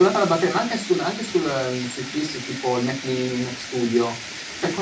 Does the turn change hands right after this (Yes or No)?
No